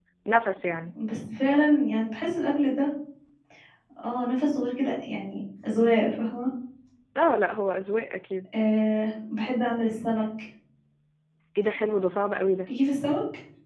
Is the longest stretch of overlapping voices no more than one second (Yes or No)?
Yes